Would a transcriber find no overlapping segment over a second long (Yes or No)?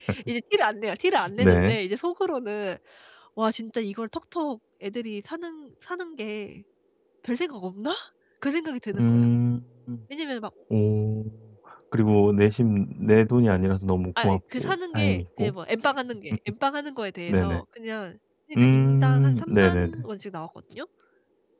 No